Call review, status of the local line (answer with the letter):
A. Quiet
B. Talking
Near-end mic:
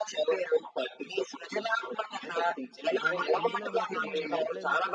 B